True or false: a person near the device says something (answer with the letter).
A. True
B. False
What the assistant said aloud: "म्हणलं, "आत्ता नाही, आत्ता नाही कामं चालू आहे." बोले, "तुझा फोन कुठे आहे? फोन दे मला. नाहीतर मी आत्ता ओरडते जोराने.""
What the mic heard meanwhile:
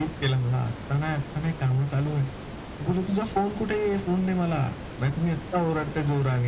B